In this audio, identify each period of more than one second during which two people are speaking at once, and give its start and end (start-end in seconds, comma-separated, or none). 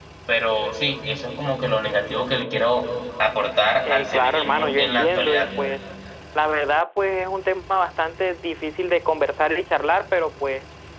3.9-5.5